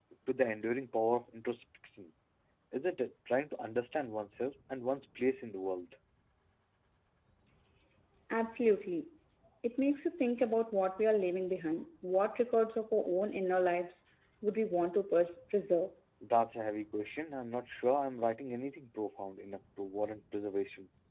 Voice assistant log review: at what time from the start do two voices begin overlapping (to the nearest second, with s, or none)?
none